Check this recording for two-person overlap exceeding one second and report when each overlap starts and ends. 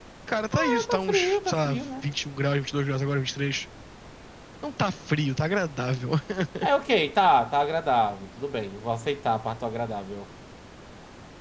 0.5-2.0

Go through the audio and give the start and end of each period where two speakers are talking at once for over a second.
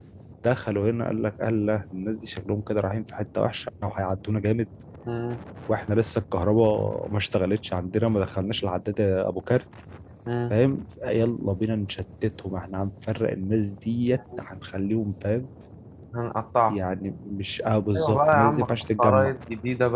18.0-19.3

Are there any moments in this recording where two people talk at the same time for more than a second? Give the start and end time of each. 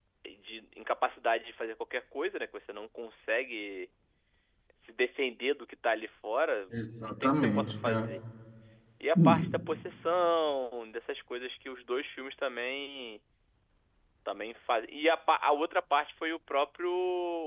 6.7-8.1

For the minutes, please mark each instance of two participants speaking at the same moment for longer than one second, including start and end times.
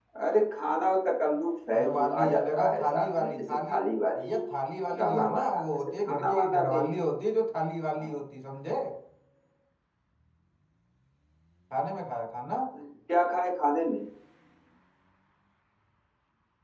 1.7-3.8, 5.0-6.8

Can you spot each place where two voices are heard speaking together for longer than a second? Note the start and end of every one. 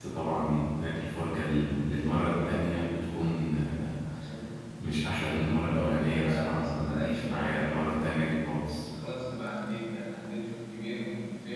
5.9-8.1

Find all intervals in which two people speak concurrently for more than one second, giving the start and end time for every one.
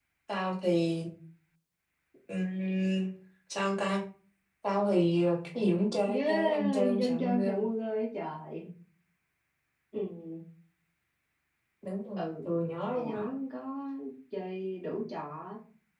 6.1-7.6

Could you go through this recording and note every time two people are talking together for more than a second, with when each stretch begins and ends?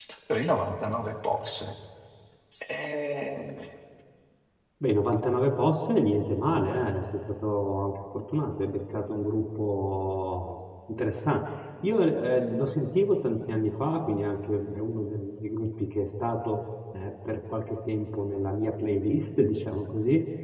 none

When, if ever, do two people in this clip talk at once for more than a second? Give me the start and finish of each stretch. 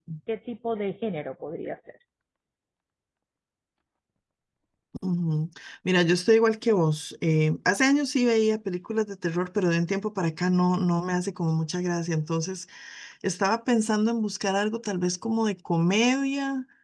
none

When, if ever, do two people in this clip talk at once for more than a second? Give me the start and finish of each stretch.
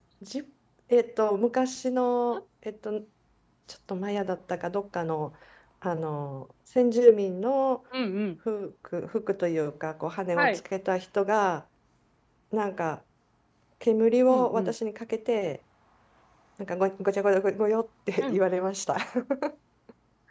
none

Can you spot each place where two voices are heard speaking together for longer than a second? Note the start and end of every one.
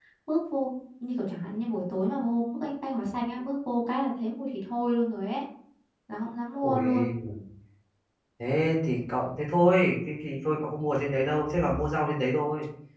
none

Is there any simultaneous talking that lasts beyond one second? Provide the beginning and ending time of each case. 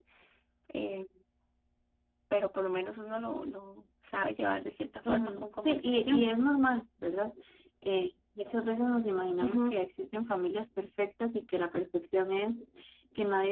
5.0-6.3

